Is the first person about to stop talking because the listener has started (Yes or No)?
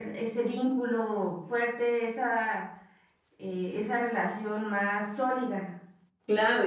Yes